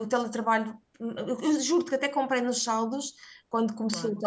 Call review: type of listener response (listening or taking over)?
listening